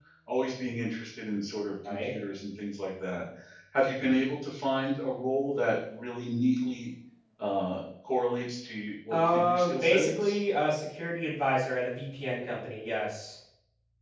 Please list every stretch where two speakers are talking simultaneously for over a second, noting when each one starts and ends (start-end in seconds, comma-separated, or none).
9.1-10.3